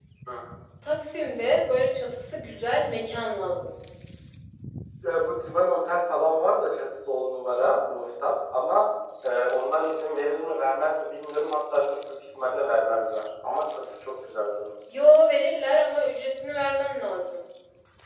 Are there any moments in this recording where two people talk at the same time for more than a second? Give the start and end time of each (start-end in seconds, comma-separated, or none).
none